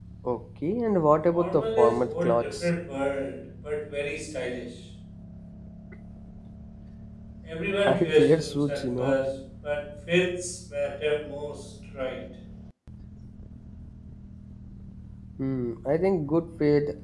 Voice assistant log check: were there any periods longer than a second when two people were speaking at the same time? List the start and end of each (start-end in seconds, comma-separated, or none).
1.3-2.7, 7.9-9.2